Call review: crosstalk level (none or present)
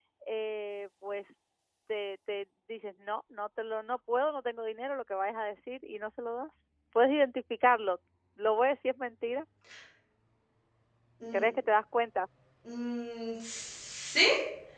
none